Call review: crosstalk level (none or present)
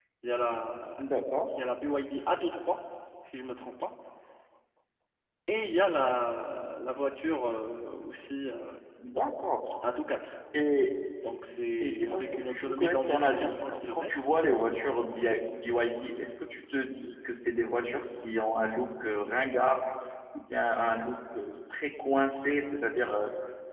present